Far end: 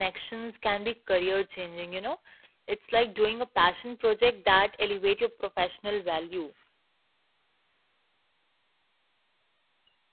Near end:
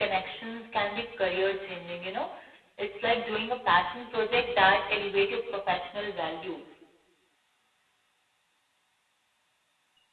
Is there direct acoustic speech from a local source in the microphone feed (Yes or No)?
No